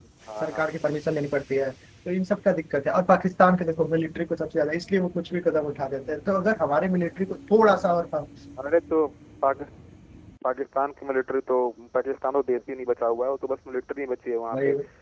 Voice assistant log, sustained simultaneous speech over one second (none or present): none